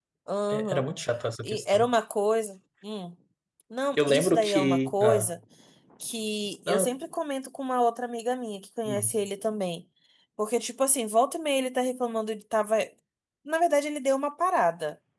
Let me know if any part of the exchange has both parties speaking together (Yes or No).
Yes